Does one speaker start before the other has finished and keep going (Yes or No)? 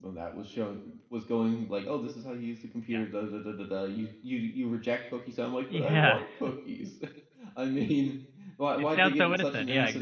Yes